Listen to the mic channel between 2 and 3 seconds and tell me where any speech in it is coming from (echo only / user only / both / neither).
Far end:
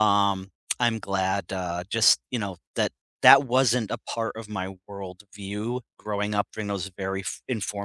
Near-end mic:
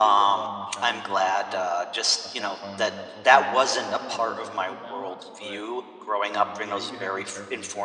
both